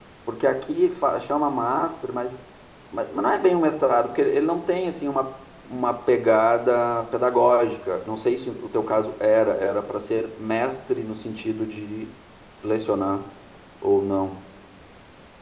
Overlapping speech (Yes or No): No